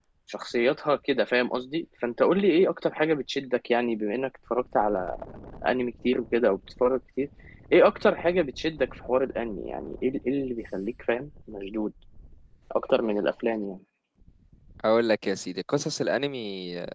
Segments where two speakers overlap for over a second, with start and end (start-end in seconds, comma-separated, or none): none